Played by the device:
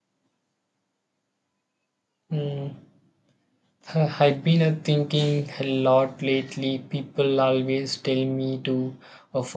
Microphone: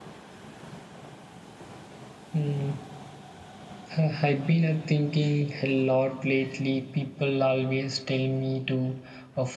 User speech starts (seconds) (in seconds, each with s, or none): none